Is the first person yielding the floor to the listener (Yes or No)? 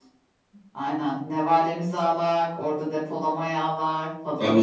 Yes